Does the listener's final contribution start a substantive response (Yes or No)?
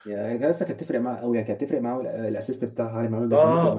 Yes